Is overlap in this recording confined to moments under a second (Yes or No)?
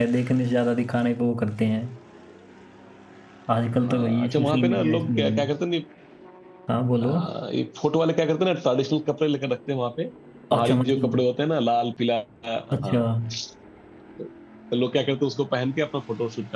No